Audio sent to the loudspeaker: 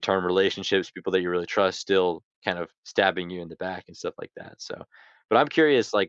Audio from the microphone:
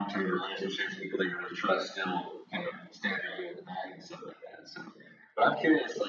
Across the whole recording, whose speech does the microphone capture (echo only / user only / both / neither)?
echo only